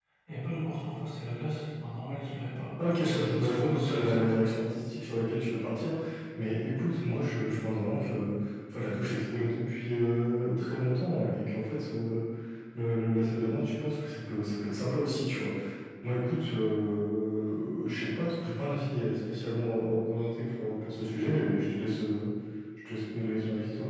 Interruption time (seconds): 2.8 s

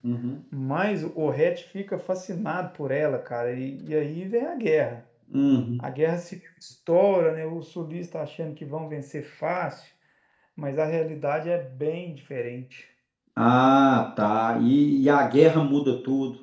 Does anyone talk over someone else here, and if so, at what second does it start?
none

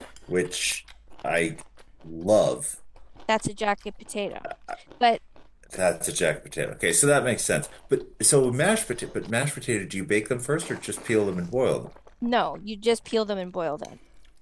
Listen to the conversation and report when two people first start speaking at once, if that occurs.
none

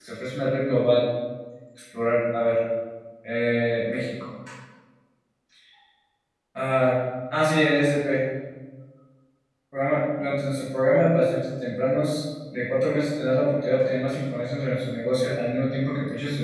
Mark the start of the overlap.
none

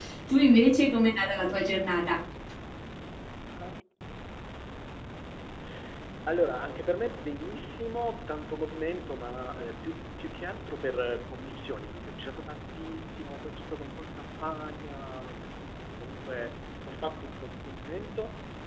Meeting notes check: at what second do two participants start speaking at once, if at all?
none

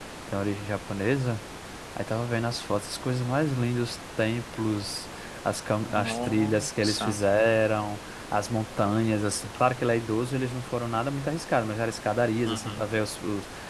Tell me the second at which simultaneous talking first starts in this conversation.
5.9 s

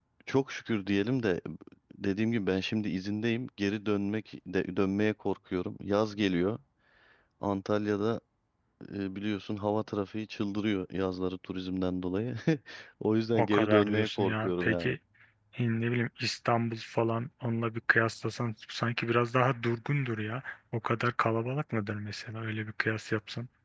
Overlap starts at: 13.3 s

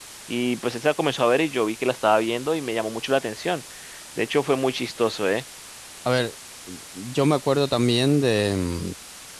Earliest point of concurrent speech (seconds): none

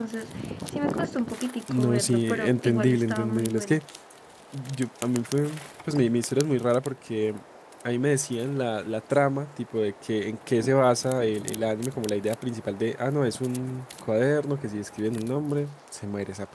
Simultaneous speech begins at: 1.7 s

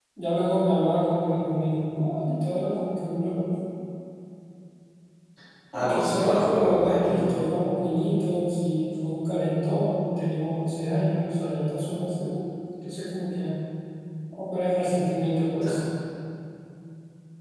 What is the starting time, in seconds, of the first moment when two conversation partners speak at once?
5.7 s

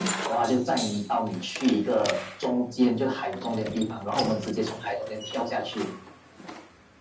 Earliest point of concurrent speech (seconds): none

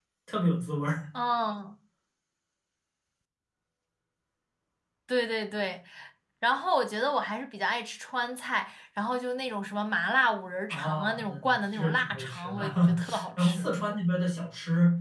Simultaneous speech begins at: 10.7 s

